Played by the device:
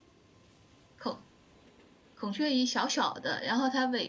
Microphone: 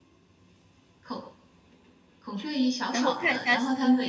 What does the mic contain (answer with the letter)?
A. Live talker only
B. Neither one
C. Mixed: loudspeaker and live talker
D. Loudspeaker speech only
C